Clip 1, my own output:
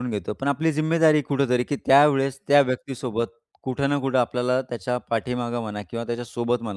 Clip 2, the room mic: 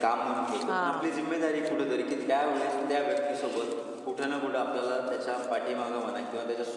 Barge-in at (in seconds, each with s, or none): 0.7 s